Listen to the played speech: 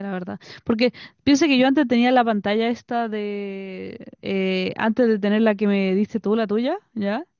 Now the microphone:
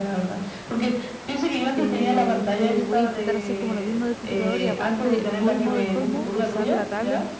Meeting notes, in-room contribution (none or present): present